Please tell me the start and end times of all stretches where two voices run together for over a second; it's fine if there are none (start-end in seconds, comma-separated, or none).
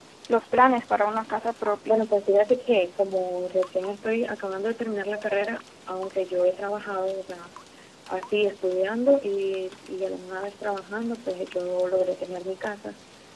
none